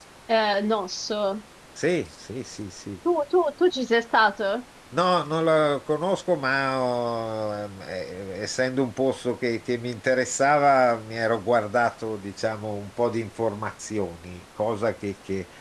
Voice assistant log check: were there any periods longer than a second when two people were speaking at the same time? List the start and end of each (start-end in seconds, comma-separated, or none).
none